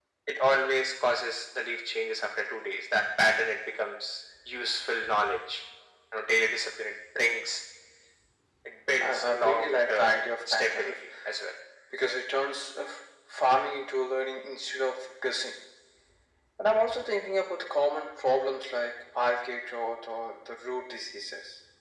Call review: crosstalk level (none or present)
present